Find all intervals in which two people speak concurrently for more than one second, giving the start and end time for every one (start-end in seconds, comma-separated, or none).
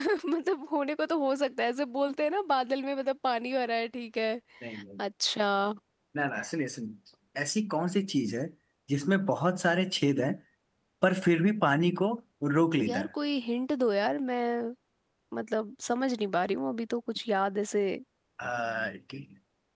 none